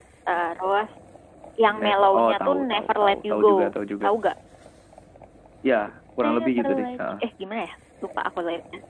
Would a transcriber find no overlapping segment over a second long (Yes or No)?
No